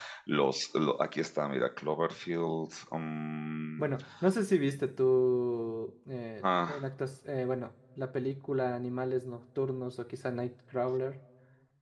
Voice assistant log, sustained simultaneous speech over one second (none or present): none